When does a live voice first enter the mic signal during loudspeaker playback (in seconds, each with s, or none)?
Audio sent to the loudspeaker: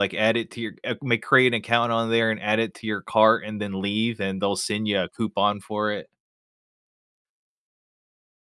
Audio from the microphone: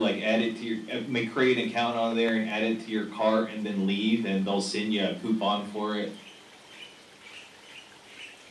none